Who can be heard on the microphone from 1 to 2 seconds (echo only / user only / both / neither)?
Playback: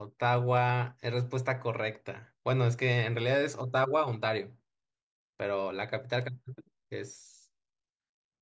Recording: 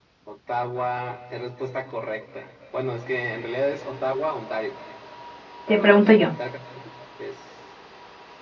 echo only